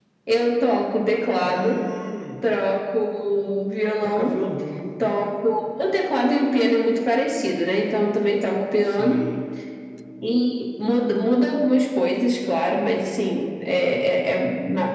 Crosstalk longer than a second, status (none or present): none